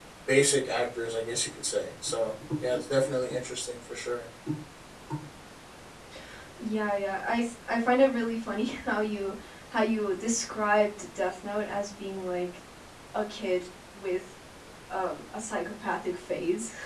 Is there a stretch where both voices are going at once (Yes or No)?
No